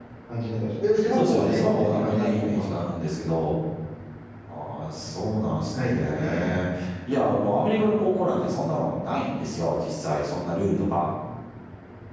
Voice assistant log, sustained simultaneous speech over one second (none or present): present